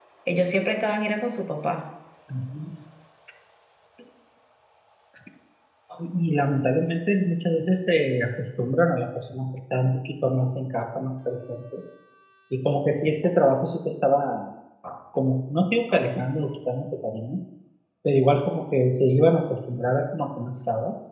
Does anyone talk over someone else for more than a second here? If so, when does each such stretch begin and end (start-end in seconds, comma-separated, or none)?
none